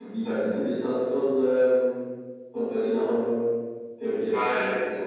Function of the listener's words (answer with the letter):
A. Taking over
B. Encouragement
A